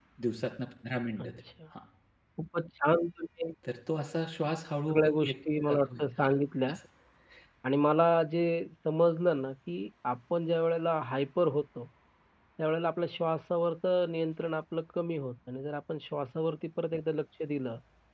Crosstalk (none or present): present